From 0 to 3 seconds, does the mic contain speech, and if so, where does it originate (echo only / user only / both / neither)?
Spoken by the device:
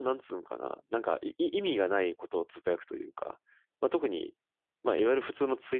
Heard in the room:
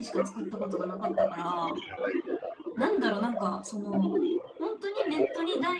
both